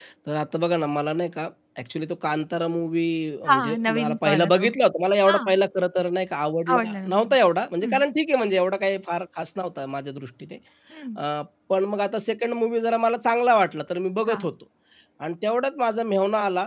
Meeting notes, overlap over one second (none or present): present